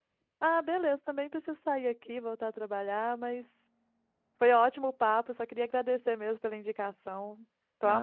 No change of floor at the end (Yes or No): No